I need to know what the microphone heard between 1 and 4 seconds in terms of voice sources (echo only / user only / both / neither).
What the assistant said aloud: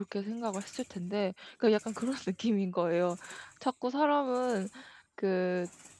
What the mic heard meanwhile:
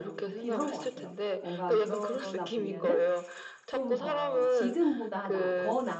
both